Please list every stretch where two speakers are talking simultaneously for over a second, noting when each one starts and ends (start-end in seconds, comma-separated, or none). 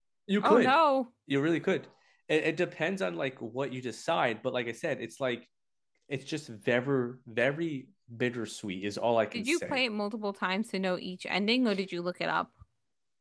none